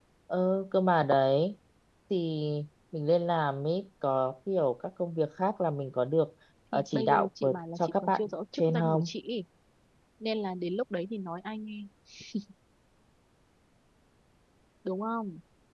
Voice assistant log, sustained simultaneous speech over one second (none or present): present